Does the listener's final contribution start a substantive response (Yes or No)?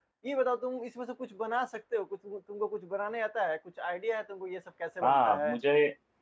Yes